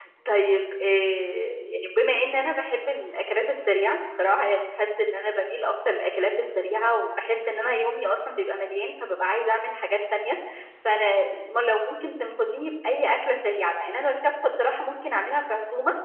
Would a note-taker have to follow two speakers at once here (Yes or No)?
No